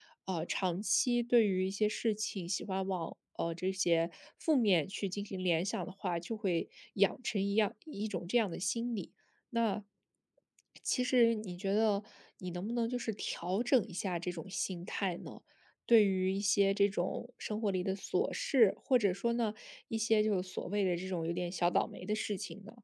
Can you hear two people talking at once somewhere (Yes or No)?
No